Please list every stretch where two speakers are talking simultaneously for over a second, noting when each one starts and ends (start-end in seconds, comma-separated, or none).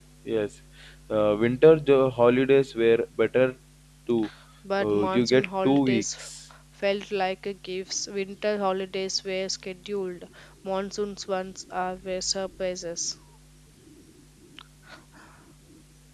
4.8-6.0